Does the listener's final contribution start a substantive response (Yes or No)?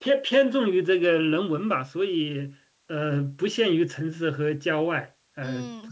Yes